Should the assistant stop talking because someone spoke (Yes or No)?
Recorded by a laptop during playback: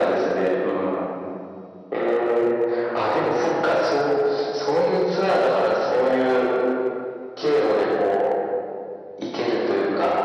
No